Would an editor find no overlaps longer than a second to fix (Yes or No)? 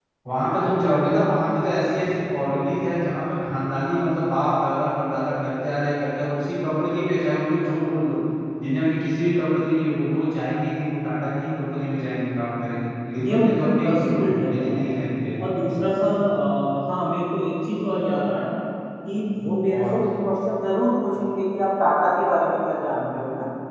No